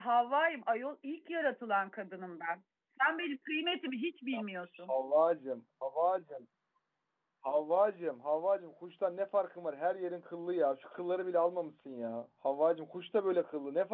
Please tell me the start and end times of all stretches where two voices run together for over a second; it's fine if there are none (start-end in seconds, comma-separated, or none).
none